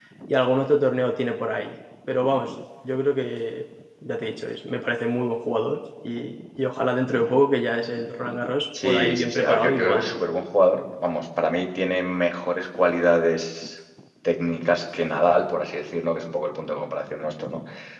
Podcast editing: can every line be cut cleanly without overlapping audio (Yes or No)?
No